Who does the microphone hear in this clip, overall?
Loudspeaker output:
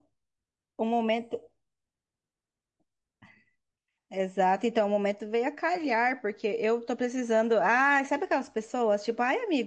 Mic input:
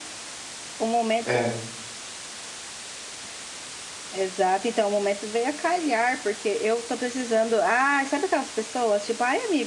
both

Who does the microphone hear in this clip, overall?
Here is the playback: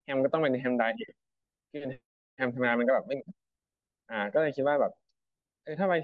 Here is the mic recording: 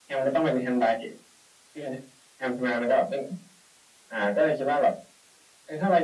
echo only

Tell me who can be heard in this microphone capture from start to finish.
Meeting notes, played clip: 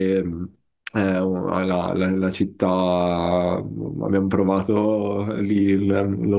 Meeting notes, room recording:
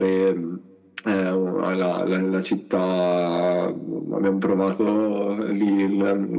echo only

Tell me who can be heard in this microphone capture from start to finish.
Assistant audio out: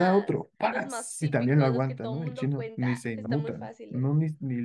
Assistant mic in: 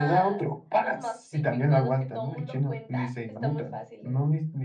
echo only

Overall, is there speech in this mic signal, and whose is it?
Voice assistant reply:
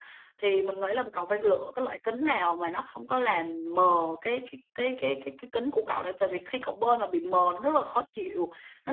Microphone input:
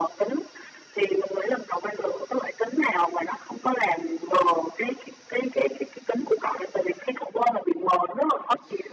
echo only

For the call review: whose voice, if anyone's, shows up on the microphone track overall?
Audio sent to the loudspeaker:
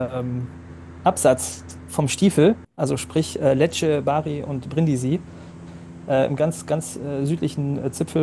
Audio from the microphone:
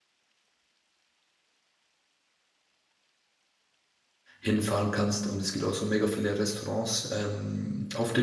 user only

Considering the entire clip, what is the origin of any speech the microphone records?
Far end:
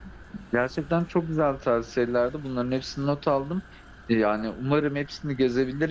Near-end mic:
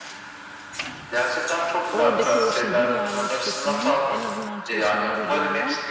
both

